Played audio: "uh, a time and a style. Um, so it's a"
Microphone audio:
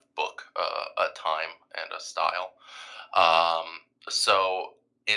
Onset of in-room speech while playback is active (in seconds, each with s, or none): none